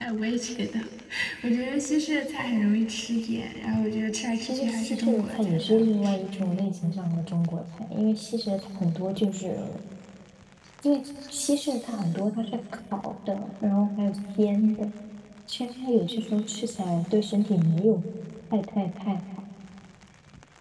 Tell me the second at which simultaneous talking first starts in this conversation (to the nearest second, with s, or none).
4 s